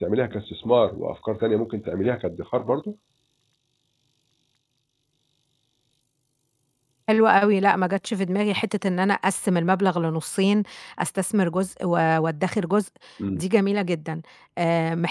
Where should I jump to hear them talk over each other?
none

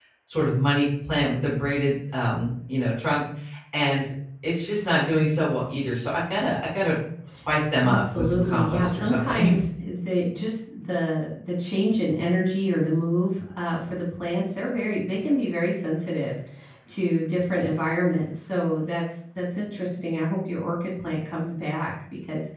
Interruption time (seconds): 7.8 s

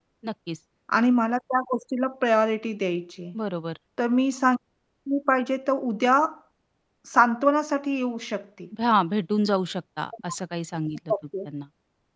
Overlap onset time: none

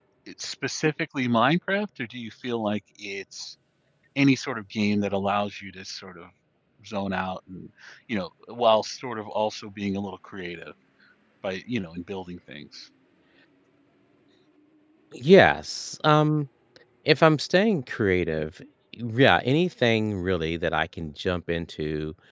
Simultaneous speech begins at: none

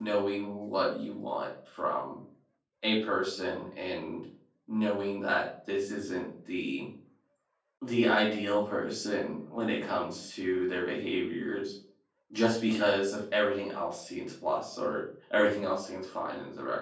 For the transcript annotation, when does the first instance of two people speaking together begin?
none

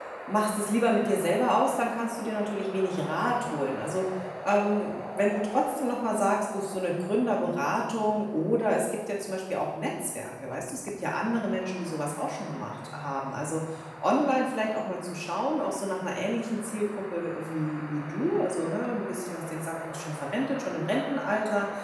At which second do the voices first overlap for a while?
none

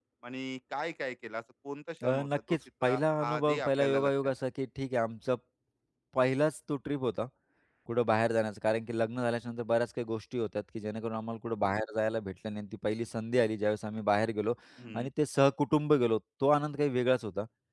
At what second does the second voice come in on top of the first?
2.0 s

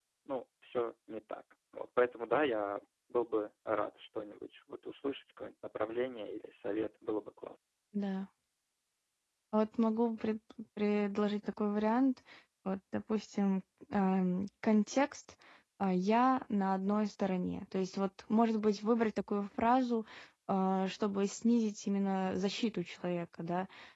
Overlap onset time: none

